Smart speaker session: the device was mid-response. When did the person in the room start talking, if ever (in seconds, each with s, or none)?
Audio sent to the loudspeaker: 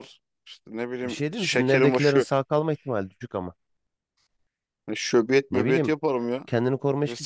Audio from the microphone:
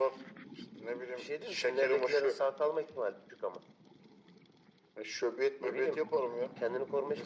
none